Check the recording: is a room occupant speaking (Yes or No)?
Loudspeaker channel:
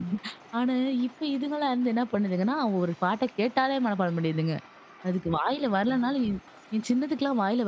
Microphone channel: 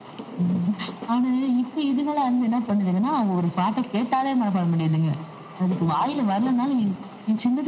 No